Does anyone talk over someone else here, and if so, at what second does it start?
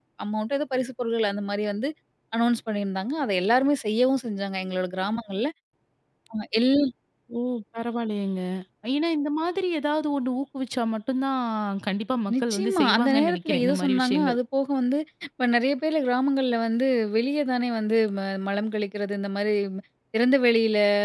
12.3 s

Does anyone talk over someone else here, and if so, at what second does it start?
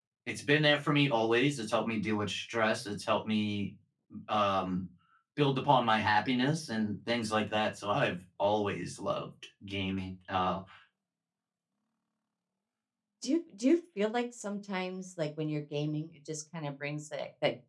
none

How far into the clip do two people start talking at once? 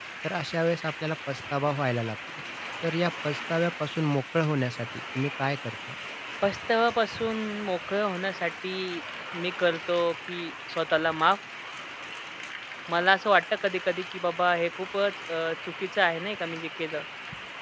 none

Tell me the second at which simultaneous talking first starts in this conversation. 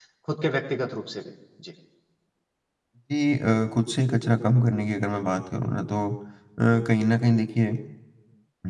none

